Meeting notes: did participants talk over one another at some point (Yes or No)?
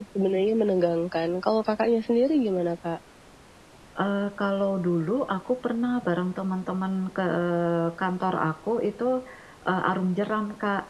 No